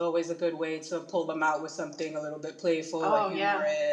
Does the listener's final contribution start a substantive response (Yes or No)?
No